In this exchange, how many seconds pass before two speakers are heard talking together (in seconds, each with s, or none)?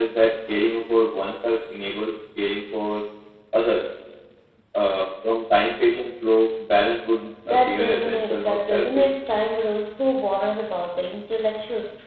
7.5 s